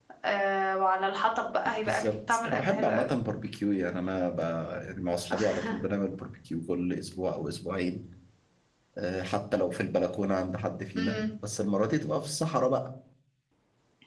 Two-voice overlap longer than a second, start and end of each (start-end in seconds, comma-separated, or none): 1.9-3.1